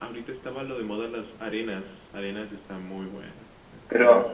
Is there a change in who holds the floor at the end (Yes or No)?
Yes